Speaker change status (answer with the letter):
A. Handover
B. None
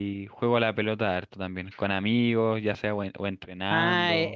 A